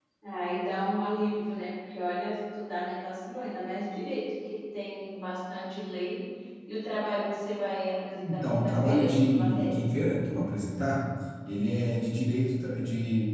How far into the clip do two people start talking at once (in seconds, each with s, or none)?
8.2 s